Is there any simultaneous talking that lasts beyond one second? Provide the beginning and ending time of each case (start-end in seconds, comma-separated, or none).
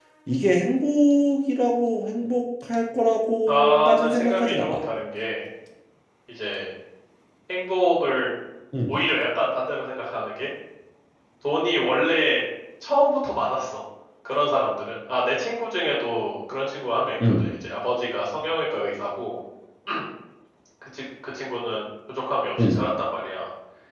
3.5-4.8